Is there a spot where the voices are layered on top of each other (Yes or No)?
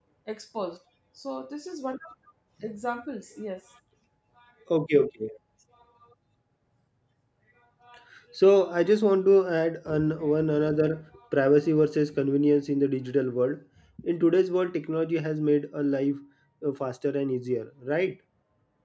No